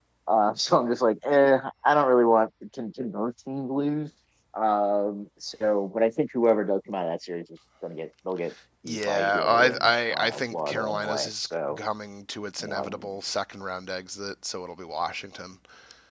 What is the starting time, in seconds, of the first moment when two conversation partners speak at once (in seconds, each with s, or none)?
8.9 s